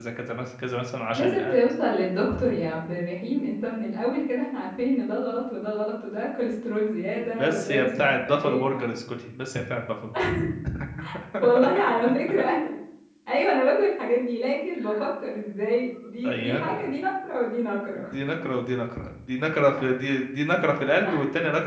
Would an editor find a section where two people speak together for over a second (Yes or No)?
Yes